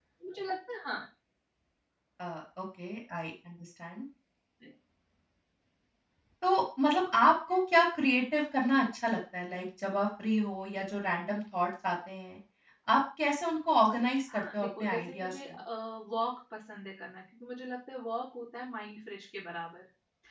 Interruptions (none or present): present